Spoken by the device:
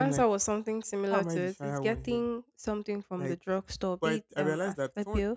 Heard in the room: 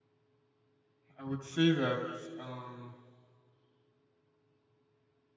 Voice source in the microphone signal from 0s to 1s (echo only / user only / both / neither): neither